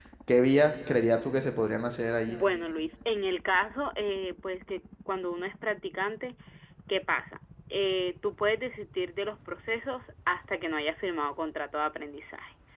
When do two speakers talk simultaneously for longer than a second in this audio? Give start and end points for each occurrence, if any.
none

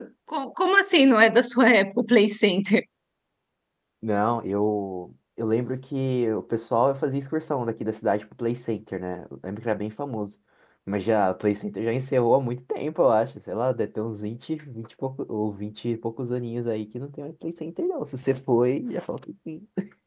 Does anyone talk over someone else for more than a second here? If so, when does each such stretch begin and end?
none

